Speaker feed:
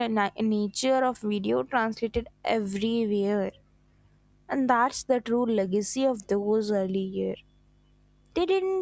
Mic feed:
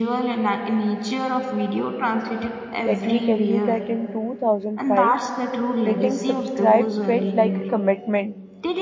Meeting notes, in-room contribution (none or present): present